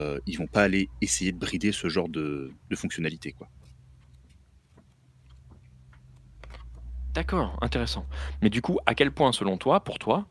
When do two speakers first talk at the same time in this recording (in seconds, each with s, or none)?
none